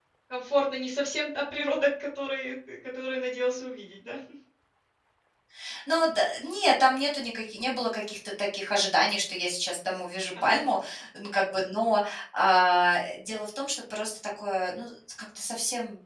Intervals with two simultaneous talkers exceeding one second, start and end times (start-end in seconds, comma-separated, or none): none